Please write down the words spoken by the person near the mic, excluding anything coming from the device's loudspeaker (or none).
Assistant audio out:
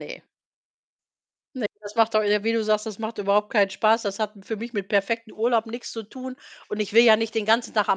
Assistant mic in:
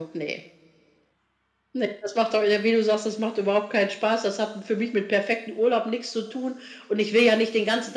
none